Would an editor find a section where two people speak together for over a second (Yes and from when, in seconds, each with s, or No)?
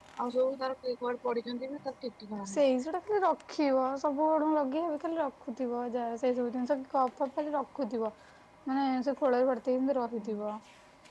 No